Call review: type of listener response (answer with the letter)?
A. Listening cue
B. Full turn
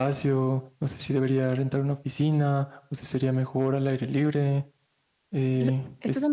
B